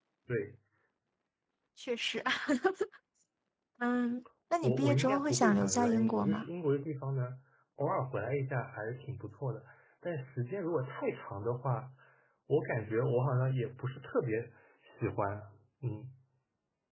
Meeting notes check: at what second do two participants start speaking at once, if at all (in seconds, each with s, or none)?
4.6 s